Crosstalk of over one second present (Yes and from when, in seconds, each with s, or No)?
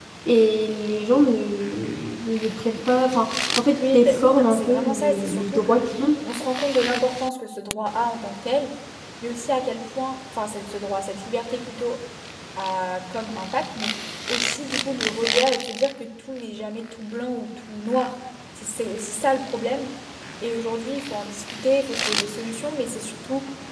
Yes, from 3.8 s